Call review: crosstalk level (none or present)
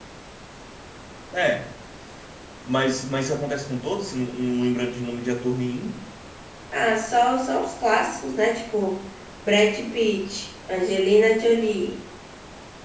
none